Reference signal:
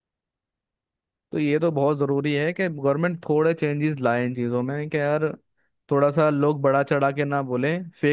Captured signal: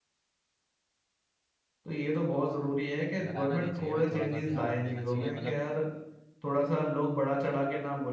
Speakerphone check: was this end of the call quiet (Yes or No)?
No